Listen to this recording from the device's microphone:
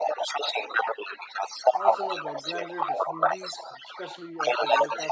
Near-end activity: present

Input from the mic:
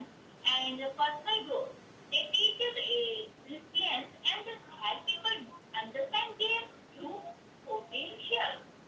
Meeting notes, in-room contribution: none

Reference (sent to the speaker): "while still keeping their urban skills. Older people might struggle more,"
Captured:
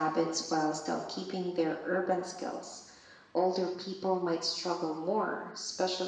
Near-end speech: none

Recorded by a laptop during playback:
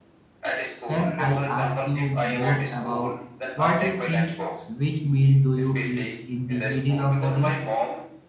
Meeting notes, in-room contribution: present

